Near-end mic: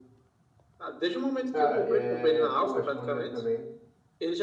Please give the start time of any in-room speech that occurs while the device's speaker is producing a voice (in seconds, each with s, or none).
1.5 s